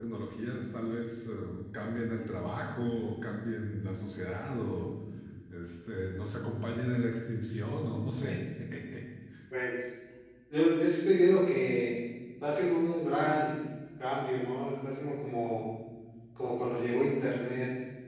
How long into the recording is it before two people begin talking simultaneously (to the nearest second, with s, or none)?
none